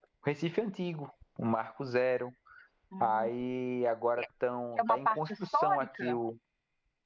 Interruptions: present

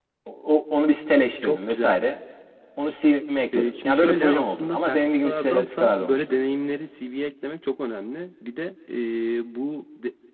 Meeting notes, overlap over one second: present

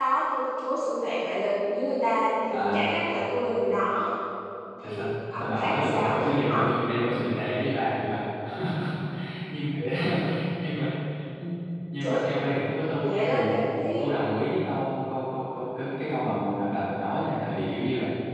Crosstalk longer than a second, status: present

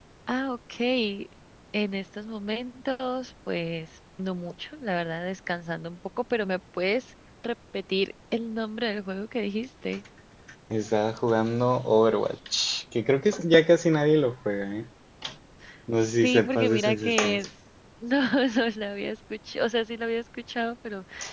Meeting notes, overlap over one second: present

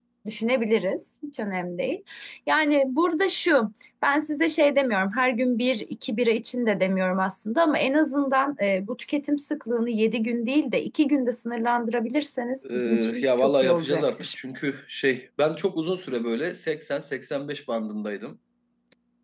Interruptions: present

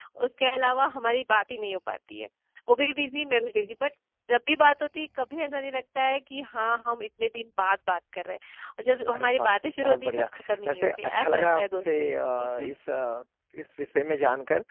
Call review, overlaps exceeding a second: present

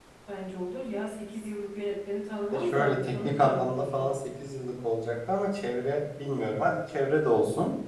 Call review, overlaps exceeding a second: present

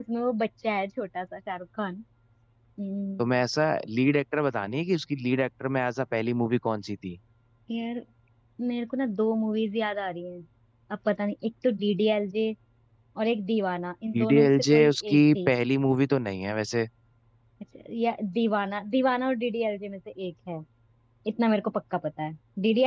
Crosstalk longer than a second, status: present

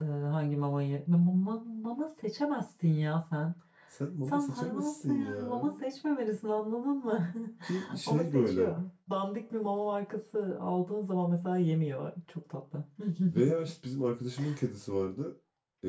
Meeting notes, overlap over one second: present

